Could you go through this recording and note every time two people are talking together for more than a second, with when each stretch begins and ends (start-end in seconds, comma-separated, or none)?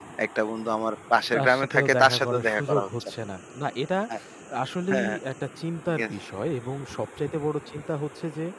1.3-3.1